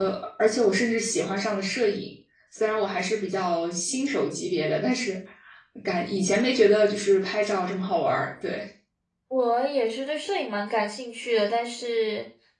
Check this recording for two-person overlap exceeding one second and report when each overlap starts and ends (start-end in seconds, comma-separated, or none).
none